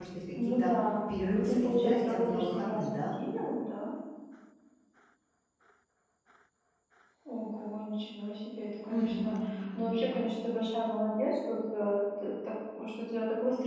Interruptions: present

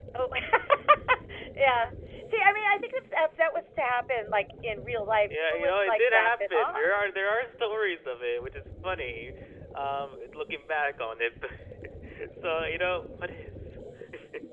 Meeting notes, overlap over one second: present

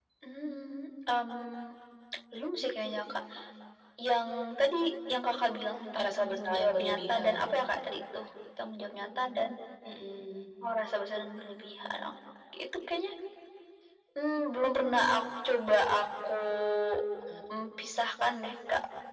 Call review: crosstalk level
present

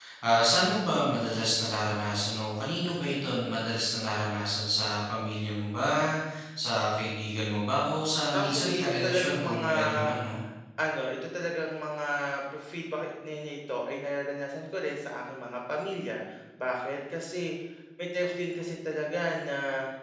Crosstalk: present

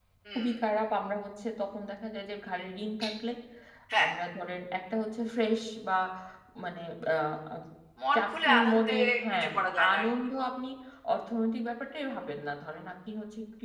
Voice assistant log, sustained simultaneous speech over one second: present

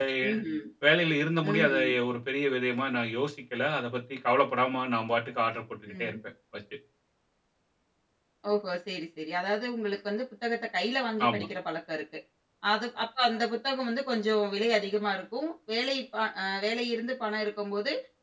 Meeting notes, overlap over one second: none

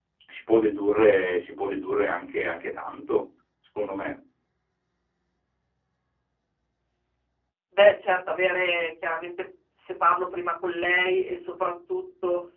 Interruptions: none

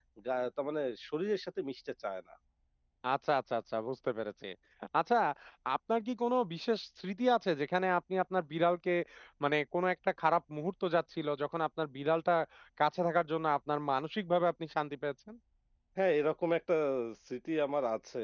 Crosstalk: none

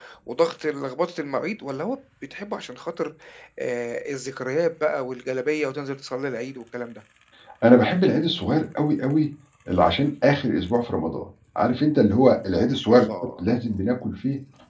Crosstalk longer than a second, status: none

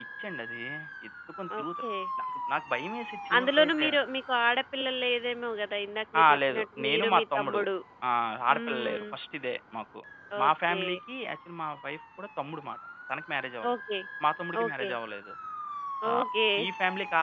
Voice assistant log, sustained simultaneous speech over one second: present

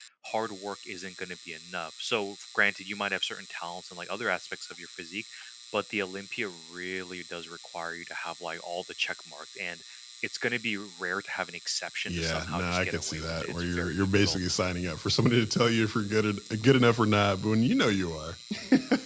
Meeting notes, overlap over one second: present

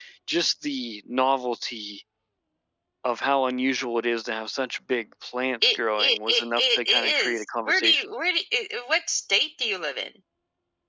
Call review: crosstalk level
present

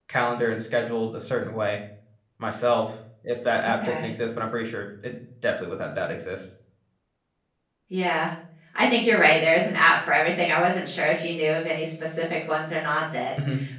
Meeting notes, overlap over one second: none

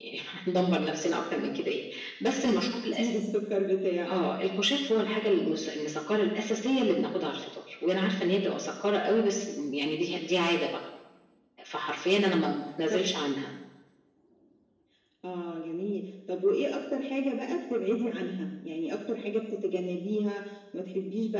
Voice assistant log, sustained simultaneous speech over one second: none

